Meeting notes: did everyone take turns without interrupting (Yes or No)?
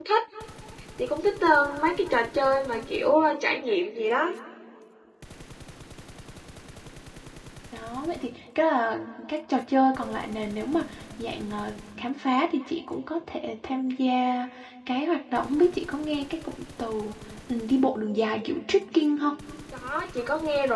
Yes